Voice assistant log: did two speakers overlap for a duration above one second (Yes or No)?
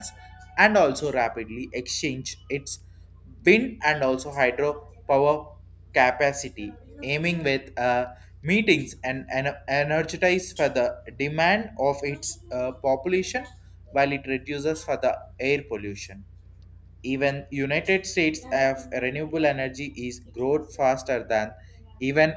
No